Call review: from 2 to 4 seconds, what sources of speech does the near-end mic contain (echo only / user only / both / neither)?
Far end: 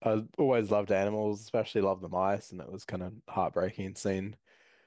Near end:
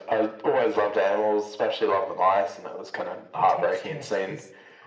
both